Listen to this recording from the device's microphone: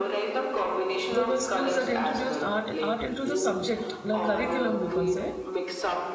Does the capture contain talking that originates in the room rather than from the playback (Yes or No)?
Yes